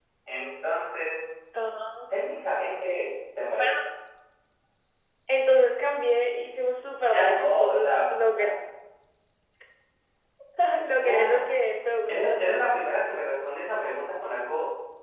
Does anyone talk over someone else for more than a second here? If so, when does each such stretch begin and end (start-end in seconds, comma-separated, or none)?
7.0-8.5